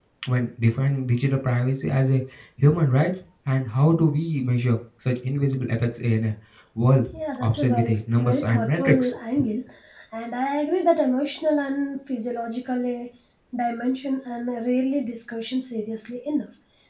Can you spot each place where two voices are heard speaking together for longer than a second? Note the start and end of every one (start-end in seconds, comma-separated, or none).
7.1-9.1